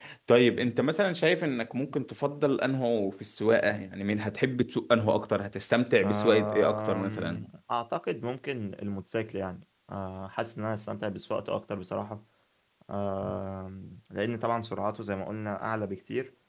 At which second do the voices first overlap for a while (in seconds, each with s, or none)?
6.0 s